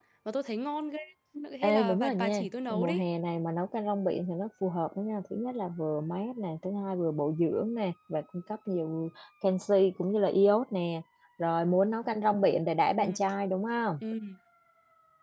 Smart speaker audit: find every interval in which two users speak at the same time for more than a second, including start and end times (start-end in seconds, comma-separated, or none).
1.6-3.0